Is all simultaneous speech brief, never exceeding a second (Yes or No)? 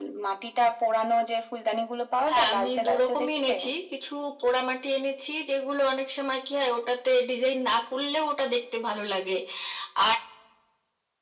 No